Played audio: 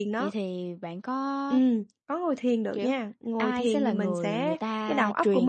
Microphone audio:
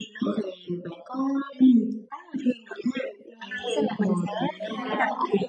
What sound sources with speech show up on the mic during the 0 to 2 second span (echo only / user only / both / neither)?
echo only